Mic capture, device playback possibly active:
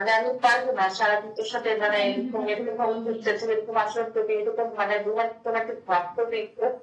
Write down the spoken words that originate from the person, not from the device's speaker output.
তোকে আমি হুটহাট করে কল দিই

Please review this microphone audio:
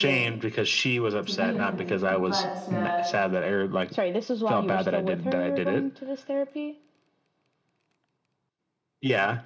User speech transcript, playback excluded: to be with him but uh

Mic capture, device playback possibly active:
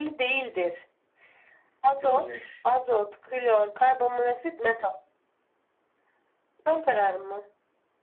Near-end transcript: John Nash.

